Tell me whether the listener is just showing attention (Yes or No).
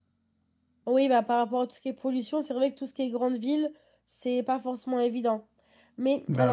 Yes